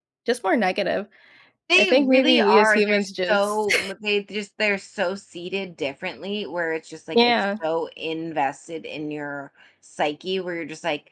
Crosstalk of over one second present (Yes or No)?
Yes